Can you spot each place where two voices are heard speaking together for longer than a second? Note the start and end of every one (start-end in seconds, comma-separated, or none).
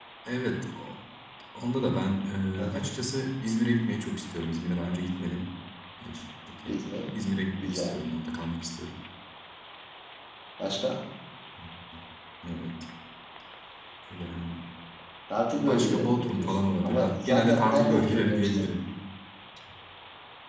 15.6-18.7